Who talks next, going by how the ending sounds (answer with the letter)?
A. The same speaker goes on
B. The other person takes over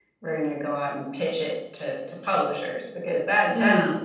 A